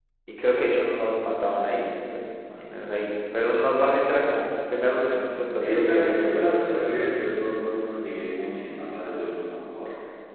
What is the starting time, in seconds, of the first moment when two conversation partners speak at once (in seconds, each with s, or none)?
5.6 s